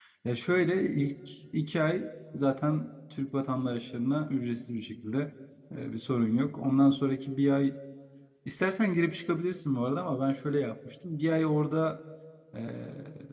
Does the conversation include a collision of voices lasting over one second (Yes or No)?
No